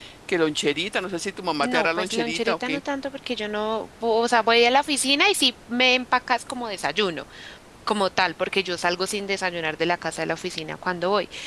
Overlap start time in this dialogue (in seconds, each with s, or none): 1.6 s